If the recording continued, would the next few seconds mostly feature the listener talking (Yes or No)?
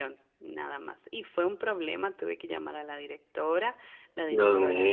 No